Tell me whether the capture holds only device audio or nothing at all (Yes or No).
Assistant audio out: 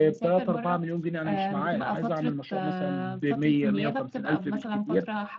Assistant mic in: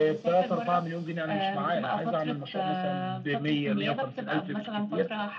Yes